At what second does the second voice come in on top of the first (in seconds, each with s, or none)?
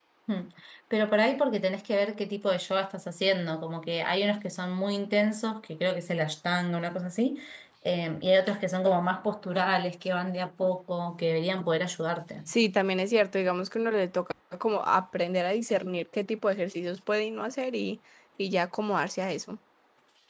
none